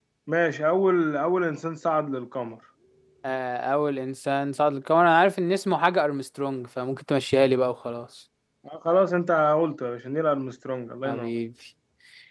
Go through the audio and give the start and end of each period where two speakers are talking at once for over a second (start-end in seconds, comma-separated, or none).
none